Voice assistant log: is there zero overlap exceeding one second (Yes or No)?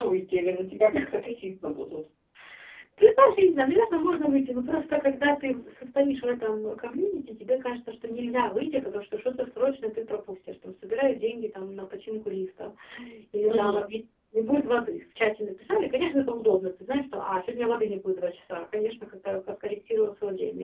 Yes